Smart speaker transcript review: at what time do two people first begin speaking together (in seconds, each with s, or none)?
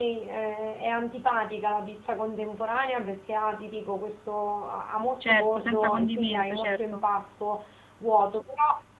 5.2 s